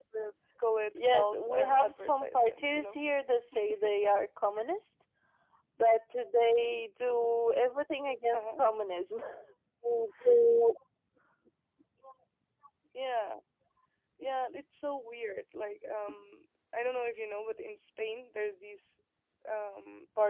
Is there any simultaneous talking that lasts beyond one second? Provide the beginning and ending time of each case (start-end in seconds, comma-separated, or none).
0.9-3.0